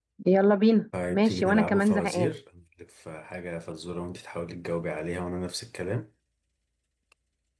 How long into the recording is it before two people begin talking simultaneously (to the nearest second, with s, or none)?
1 s